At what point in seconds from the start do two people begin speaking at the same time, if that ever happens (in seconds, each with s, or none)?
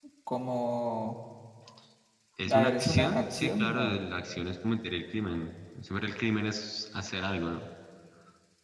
2.5 s